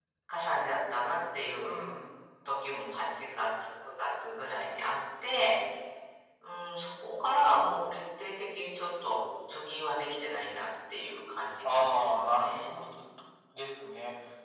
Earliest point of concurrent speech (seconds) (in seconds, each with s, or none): 11.6 s